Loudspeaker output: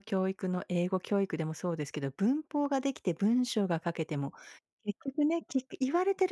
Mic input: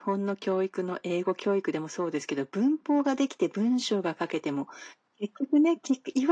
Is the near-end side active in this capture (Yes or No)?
No